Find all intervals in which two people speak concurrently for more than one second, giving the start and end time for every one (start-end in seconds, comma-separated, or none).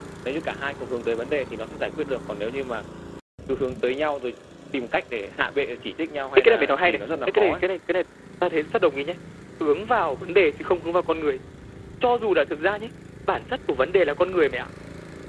6.4-7.6